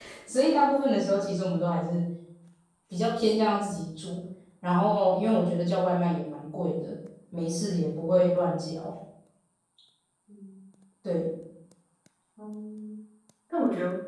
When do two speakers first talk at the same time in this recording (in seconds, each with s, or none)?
none